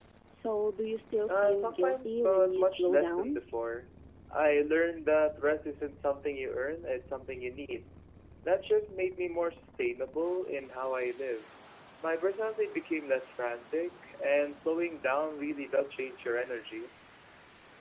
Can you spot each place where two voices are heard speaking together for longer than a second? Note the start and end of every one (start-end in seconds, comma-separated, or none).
1.3-3.4